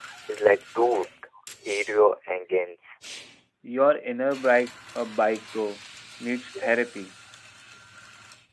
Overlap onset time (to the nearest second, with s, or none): none